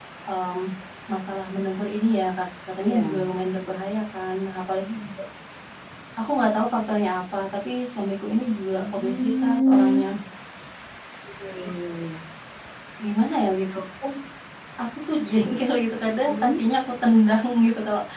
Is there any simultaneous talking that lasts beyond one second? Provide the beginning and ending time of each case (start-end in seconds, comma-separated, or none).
8.8-10.0